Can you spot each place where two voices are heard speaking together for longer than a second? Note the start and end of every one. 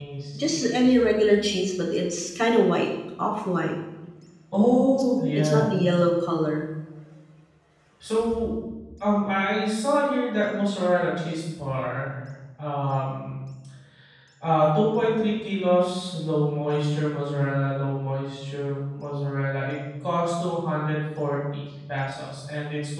none

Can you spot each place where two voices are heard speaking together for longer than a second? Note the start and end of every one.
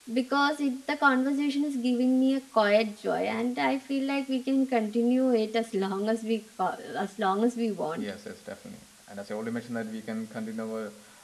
none

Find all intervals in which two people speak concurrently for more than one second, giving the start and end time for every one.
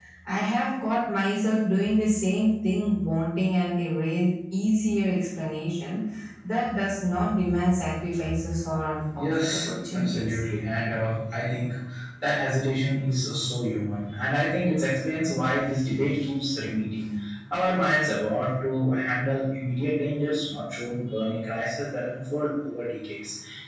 9.2-10.4

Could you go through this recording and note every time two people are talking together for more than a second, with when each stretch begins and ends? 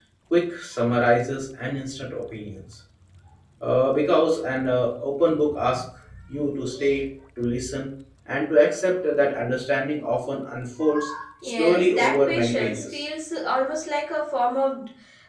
11.4-13.0

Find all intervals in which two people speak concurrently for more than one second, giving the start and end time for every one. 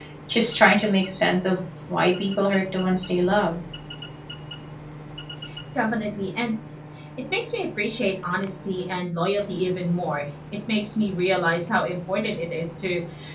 none

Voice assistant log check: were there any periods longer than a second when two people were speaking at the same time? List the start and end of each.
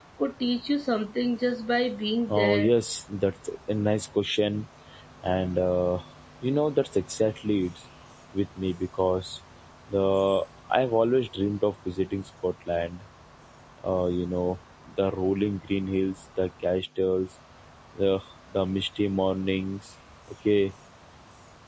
none

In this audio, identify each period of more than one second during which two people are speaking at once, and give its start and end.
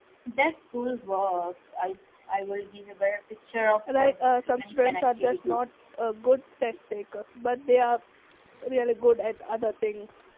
4.0-5.6

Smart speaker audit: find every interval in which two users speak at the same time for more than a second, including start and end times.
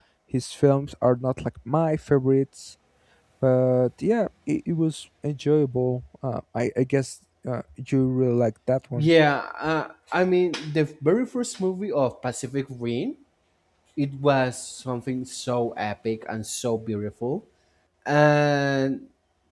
none

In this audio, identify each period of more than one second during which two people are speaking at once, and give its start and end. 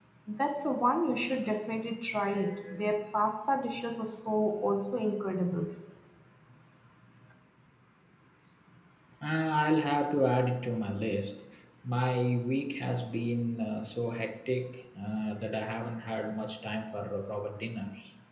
none

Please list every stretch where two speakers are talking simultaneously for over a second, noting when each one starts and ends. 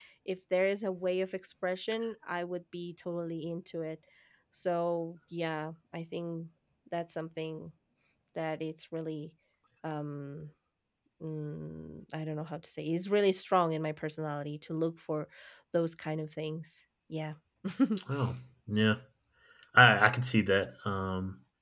none

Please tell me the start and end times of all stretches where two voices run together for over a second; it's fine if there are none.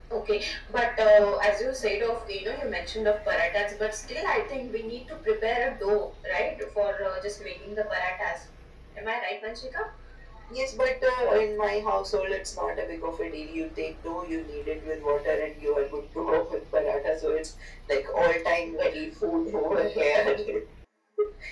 none

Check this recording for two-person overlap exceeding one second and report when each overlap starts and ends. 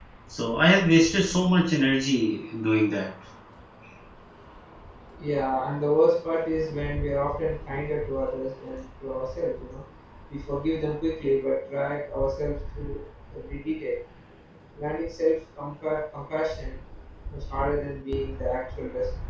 none

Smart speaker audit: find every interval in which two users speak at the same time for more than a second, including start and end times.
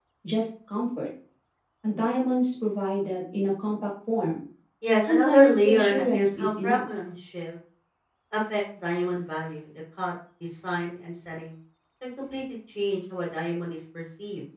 5.0-6.8

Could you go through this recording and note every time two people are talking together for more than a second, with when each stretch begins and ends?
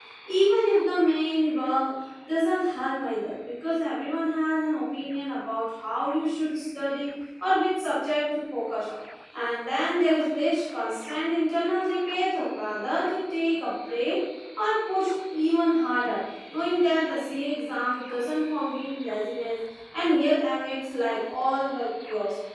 none

